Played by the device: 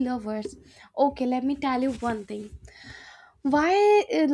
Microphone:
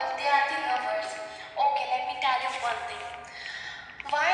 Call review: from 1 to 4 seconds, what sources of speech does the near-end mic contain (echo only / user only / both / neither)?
echo only